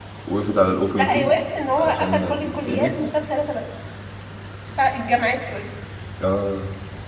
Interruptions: present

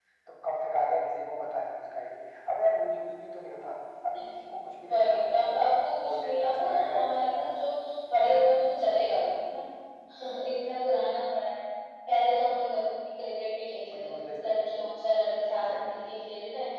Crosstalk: present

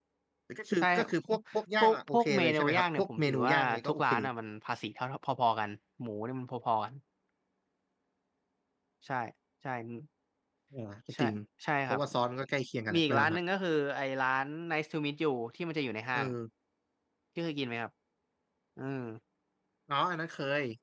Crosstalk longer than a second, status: present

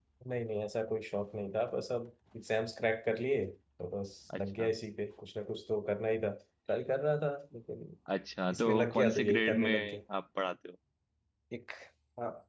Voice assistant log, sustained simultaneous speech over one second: present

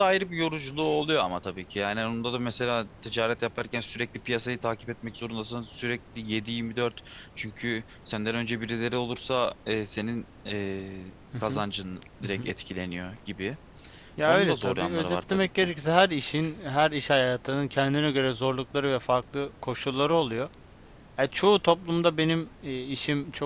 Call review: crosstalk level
present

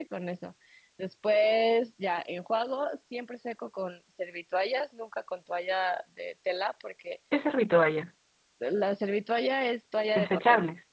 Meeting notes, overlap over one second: none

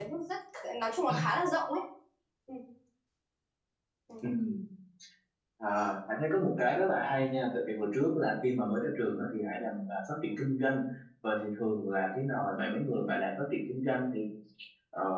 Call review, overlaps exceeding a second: none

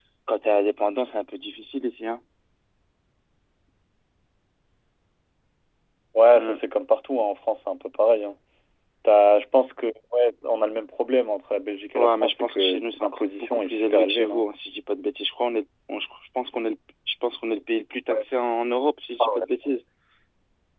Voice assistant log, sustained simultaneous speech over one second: present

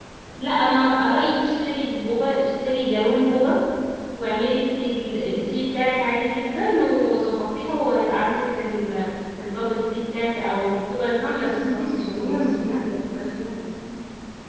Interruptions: present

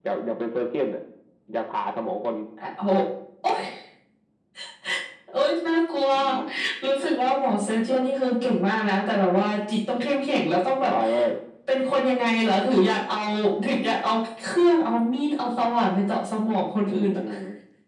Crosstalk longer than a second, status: none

